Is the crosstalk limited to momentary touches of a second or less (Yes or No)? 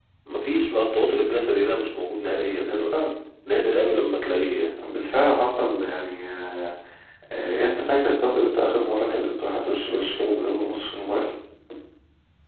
Yes